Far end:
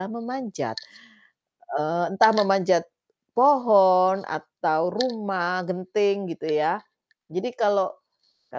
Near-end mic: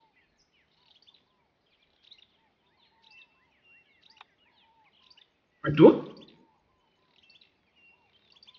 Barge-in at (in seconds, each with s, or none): 5.6 s